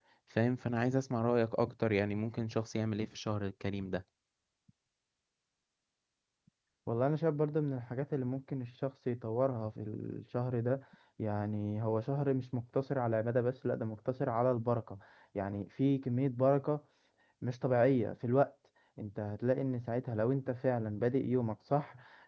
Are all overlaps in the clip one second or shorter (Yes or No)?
Yes